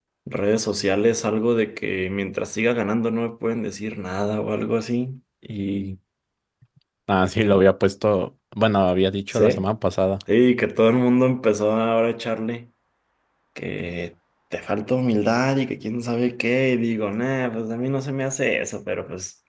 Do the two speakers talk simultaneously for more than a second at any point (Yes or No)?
No